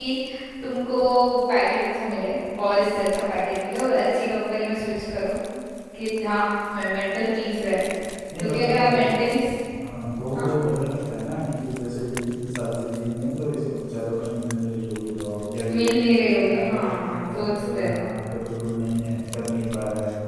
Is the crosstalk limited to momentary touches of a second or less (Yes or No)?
No